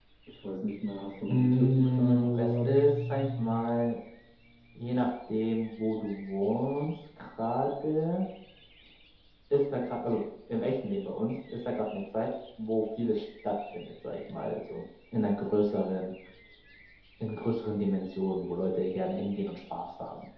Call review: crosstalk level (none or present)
present